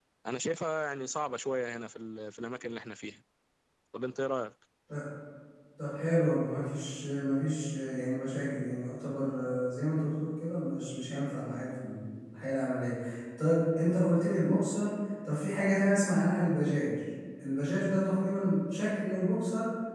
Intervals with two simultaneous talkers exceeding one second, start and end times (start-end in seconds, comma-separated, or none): none